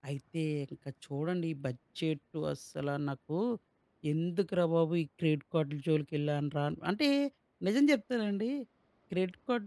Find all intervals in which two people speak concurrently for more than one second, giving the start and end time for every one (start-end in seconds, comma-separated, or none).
none